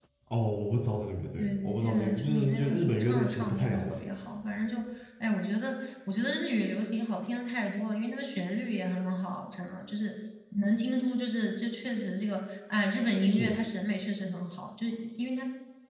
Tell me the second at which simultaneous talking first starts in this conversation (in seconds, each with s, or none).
1.4 s